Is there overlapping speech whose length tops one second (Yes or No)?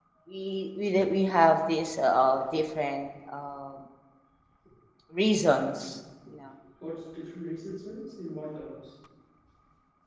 No